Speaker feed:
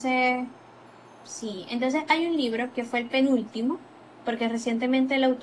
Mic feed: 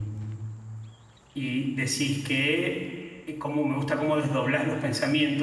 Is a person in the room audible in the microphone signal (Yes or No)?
Yes